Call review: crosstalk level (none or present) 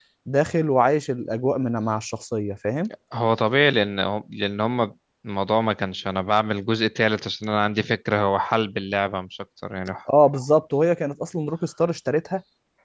none